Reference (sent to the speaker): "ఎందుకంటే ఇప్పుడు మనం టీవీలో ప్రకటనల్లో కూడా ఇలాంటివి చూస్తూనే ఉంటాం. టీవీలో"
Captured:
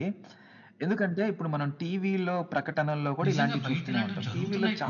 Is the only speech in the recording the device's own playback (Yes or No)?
No